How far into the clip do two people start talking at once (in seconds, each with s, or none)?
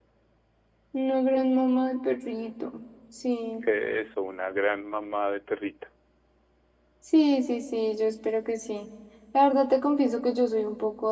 none